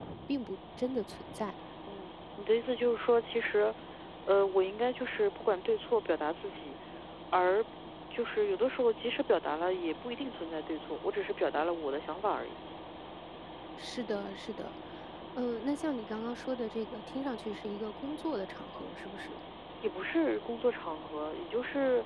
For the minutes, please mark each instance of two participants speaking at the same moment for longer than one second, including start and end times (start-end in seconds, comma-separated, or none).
none